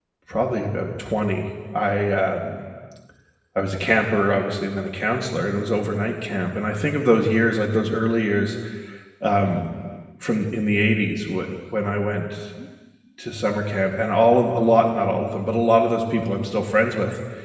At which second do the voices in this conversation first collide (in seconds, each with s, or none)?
none